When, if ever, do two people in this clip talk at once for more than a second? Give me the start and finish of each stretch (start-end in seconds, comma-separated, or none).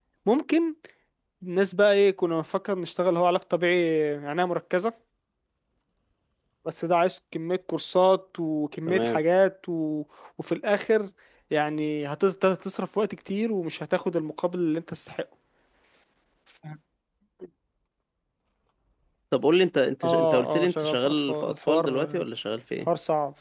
20.0-22.2